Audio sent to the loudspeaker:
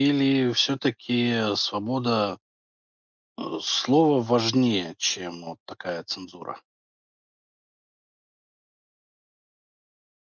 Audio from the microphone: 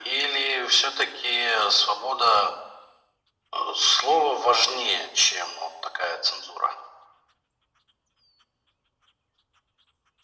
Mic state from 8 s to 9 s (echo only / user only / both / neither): neither